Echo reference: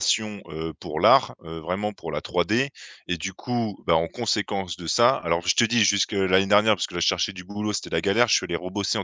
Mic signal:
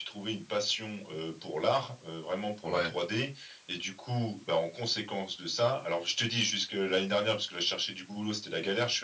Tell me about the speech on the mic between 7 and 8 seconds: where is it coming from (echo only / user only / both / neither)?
echo only